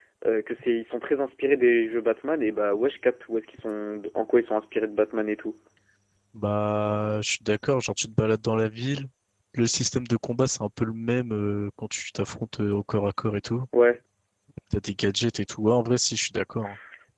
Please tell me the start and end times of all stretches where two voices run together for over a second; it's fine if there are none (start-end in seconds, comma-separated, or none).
none